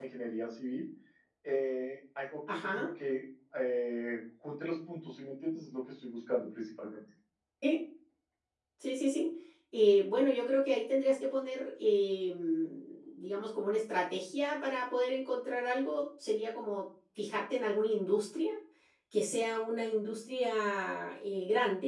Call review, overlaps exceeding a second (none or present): none